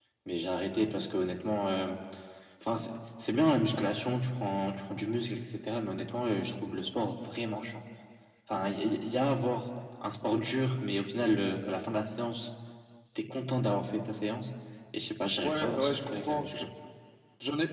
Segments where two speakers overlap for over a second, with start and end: 15.4-16.6

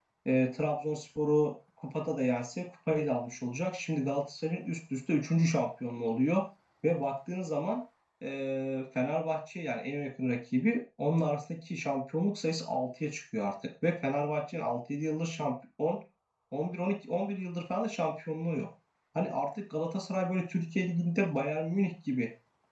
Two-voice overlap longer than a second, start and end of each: none

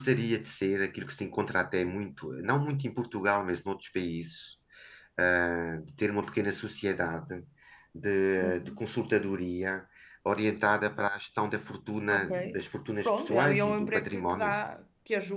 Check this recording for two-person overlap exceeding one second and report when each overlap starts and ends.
13.0-14.6

